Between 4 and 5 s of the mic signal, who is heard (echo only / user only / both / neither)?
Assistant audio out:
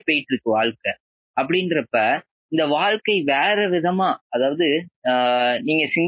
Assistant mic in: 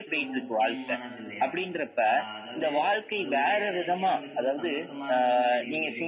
both